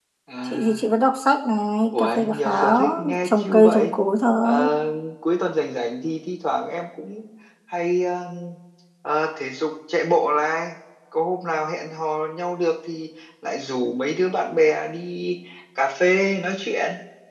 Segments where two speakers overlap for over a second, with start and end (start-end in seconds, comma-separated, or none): 1.9-3.9